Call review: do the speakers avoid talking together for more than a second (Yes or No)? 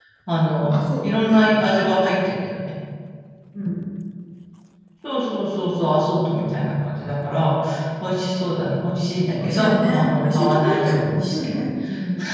No